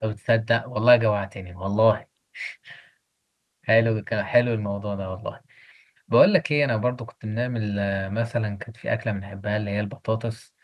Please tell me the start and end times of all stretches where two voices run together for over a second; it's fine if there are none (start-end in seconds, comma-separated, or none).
none